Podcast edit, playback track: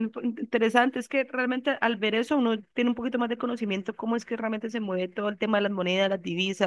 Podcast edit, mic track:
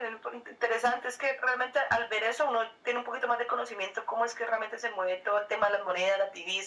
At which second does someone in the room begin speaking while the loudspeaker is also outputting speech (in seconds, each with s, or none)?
none